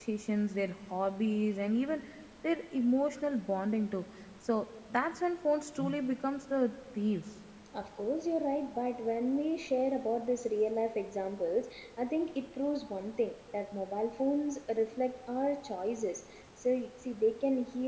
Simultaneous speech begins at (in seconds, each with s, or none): none